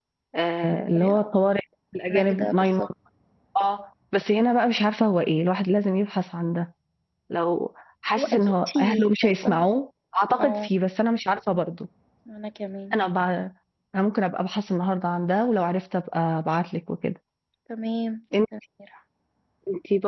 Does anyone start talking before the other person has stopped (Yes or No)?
Yes